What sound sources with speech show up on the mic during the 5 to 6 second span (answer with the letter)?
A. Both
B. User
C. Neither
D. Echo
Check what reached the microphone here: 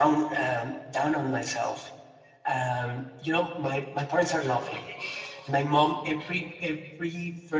B